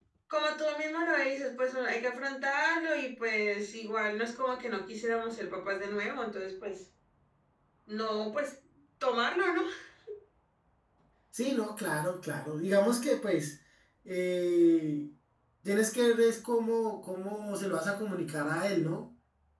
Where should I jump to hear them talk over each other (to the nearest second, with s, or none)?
none